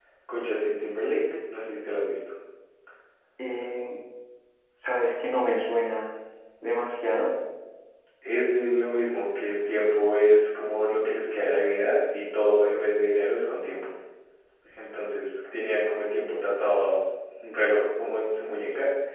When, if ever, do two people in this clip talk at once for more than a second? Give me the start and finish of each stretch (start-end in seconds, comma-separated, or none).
none